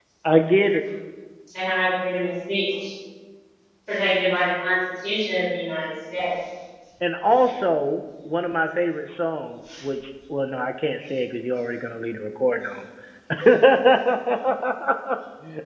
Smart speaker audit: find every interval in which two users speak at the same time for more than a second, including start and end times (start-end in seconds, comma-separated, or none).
none